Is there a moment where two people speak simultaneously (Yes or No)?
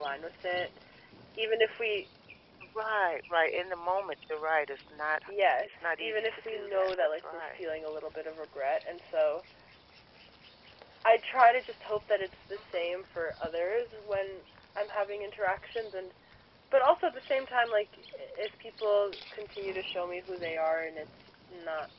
Yes